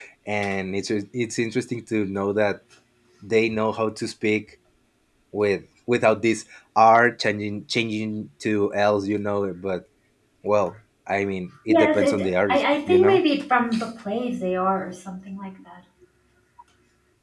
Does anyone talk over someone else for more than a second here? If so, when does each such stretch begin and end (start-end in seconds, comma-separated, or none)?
11.7-13.2